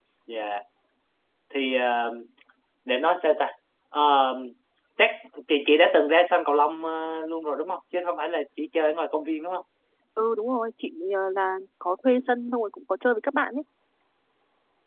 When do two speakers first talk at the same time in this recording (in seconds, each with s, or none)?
none